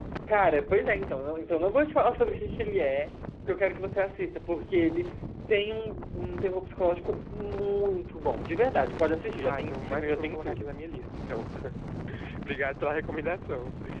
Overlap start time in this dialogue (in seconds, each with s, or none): 9.4 s